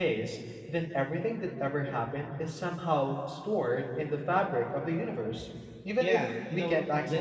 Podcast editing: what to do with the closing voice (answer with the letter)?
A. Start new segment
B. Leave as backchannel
A